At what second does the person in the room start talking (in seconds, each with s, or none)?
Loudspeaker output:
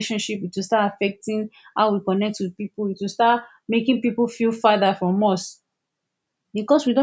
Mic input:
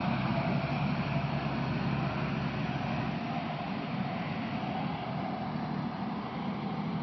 none